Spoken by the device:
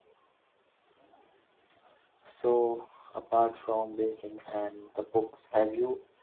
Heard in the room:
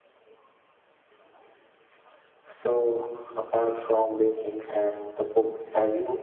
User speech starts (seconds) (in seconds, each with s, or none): none